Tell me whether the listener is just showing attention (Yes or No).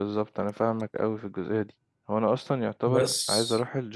Yes